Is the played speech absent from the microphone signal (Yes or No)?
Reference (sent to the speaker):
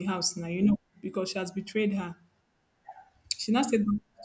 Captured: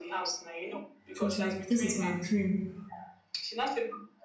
No